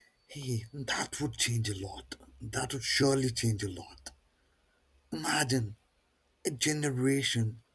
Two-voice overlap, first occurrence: none

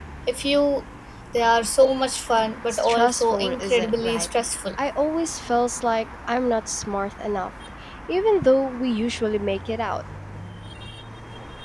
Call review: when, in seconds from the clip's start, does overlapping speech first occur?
2.7 s

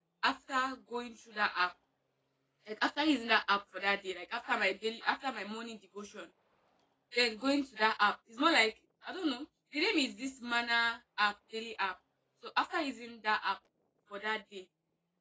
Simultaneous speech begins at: none

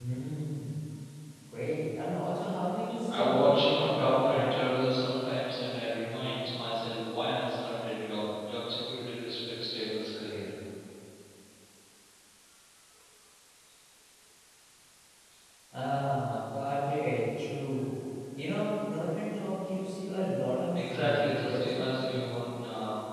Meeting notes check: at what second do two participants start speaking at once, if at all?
3.1 s

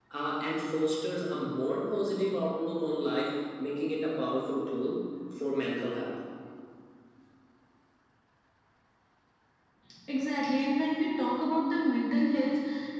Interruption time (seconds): none

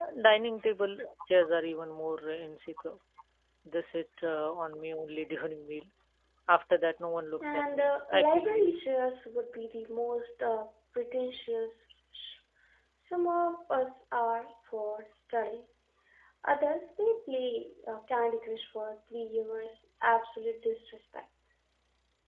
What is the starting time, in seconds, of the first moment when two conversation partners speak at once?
7.4 s

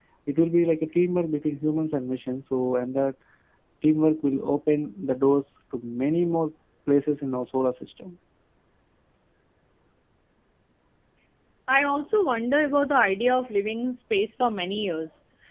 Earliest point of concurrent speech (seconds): none

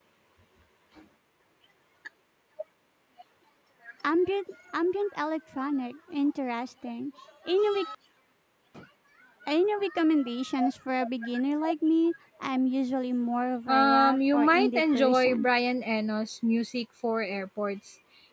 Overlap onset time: 13.7 s

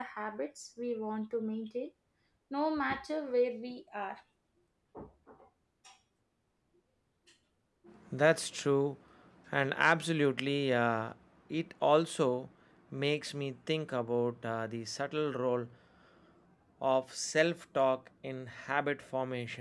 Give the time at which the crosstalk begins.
none

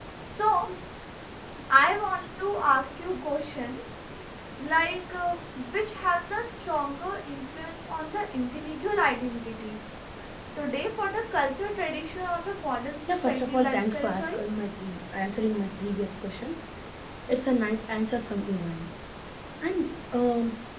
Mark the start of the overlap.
13.1 s

